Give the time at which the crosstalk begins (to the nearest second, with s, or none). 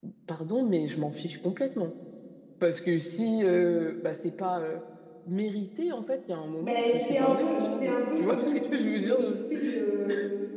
7 s